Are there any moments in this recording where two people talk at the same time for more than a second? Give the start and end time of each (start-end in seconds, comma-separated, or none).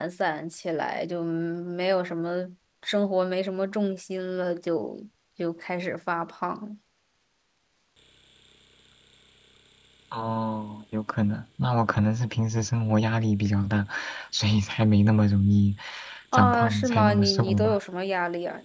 16.3-17.8